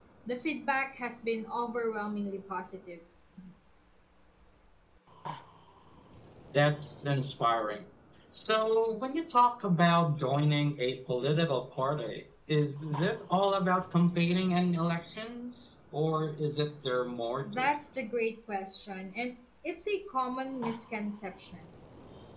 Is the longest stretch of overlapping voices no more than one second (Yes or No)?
Yes